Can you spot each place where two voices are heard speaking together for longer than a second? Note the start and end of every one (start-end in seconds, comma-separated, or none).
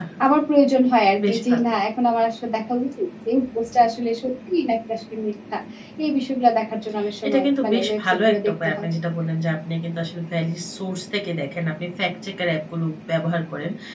7.3-8.9